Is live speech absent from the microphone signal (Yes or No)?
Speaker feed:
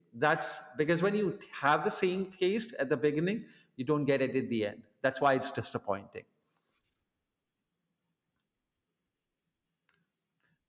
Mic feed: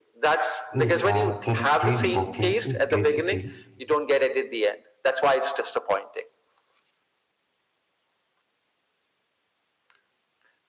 No